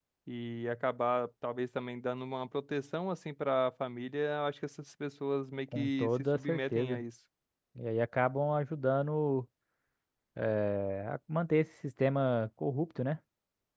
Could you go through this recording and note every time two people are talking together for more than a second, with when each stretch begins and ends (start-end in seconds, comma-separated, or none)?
5.7-7.0